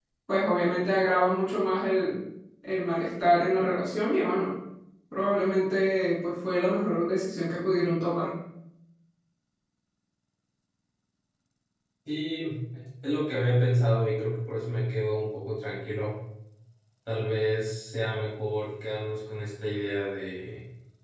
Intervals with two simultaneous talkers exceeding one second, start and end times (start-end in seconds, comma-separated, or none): none